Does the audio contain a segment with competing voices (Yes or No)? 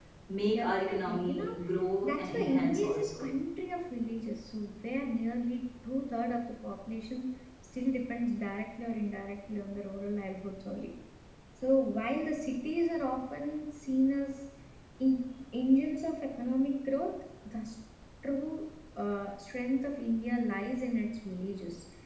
Yes